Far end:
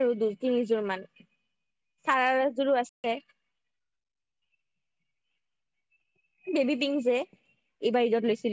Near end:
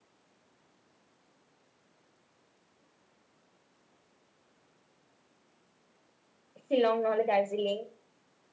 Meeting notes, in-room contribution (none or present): present